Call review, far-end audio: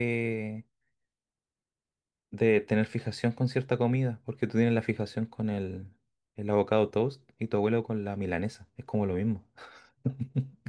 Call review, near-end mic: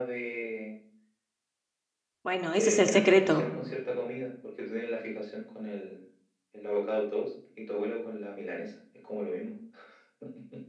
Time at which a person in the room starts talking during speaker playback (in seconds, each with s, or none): 2.2 s